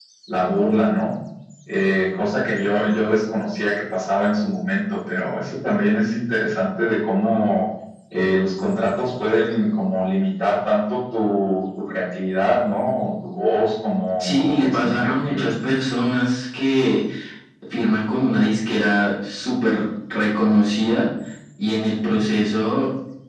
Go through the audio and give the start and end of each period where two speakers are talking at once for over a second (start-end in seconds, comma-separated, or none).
14.2-15.4